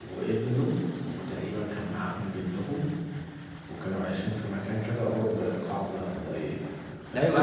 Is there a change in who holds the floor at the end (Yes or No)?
Yes